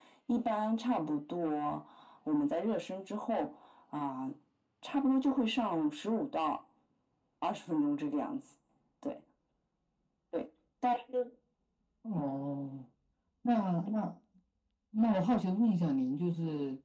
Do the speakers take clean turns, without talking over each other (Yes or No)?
Yes